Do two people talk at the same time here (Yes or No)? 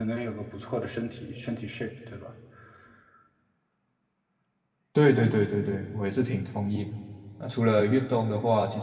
No